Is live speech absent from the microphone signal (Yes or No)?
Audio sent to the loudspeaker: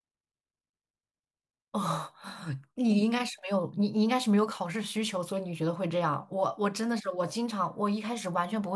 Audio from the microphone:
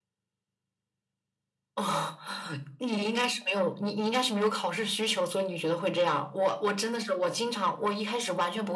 Yes